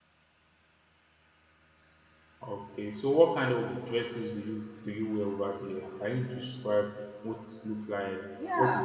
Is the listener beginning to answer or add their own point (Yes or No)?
Yes